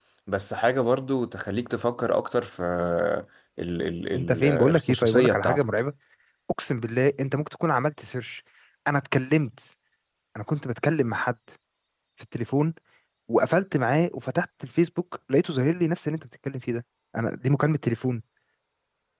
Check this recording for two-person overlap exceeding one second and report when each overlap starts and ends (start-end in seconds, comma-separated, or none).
4.1-5.6